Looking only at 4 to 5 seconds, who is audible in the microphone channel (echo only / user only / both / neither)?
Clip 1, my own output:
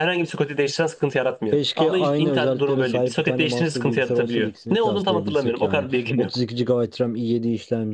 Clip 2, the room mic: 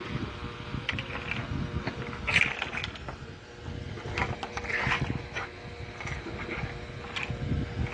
neither